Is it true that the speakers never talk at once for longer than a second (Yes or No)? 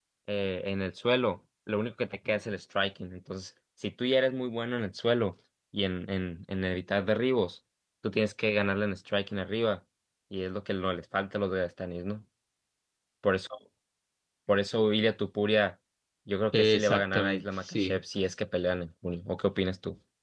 No